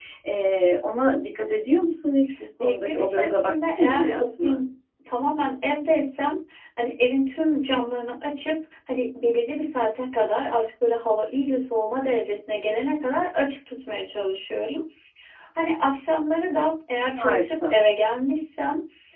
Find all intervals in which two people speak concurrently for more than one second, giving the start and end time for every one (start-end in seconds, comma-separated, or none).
2.6-4.6